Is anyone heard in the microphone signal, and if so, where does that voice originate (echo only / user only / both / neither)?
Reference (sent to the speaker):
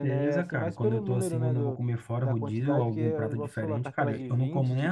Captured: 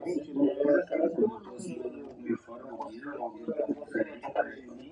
echo only